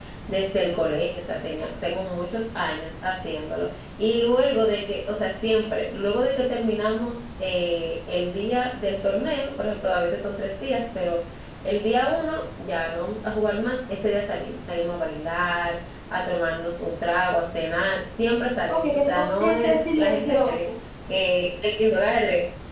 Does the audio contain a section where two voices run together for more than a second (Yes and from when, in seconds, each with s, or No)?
Yes, from 18.7 s